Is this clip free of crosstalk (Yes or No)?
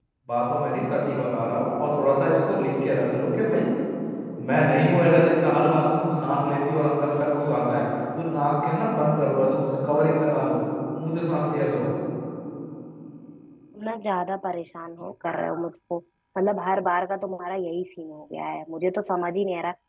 Yes